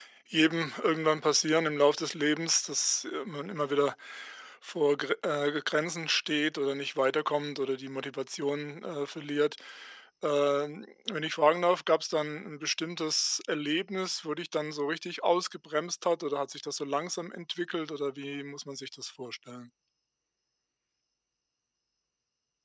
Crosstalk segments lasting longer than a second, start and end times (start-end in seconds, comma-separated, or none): none